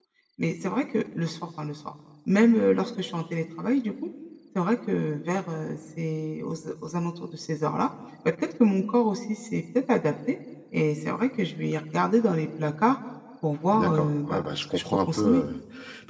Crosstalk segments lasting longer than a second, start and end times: 13.7-15.4

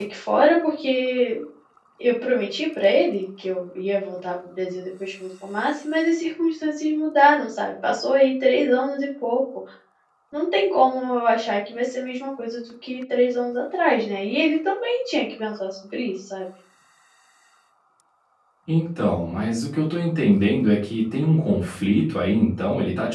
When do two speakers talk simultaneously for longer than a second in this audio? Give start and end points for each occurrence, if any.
none

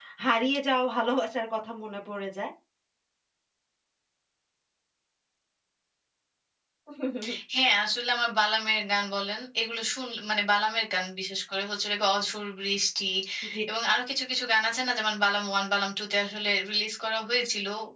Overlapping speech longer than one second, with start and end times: none

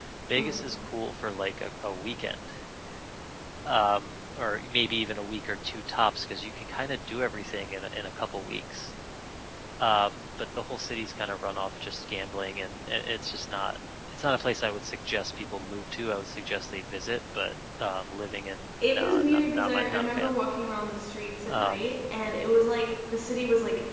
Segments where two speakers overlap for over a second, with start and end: 18.9-20.3

